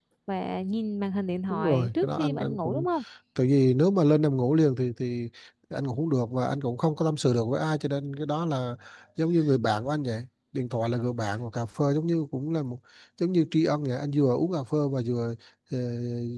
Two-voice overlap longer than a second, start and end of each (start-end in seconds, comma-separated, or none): 1.5-2.9